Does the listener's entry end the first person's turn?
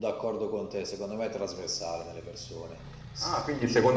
Yes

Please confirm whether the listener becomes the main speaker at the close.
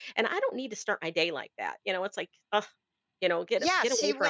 Yes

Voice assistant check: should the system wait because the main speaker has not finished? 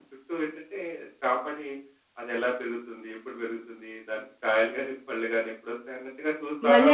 No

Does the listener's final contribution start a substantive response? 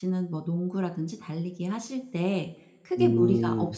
No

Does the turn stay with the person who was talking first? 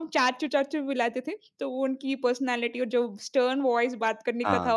Yes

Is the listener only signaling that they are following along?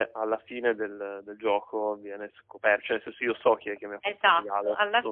No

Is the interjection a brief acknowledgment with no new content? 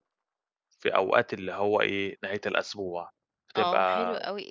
No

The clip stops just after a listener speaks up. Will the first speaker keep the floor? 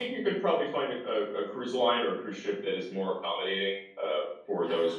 No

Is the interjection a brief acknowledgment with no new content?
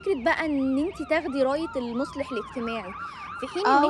No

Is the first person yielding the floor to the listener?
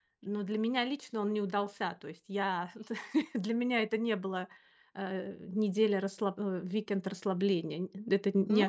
Yes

